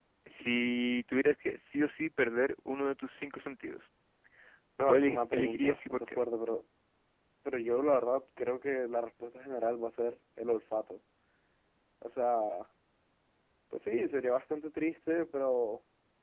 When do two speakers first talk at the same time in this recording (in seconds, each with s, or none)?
4.9 s